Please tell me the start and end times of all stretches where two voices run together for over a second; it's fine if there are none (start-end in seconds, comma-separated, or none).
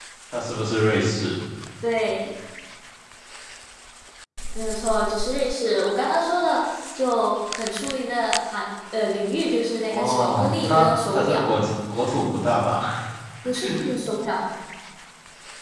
9.9-11.5